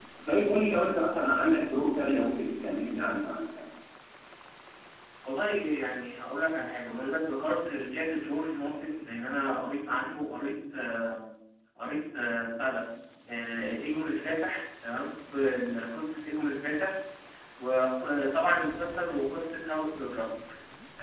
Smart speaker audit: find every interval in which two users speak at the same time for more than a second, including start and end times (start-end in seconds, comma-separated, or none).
none